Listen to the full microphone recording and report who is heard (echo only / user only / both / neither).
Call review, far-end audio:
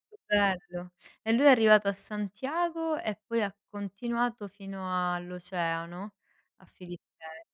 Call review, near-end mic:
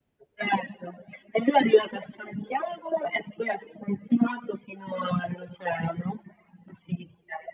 echo only